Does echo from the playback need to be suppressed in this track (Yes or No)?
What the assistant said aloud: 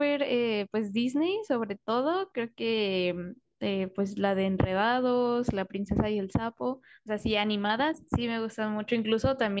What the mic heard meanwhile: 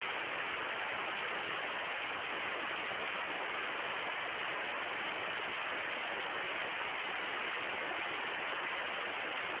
No